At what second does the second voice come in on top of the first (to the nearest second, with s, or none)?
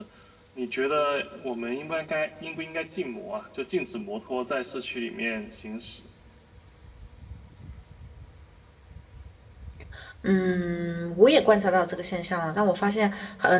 none